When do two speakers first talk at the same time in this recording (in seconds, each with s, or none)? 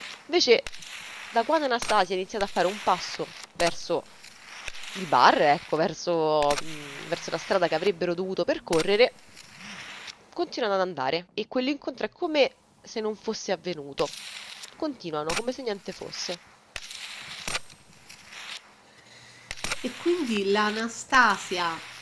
none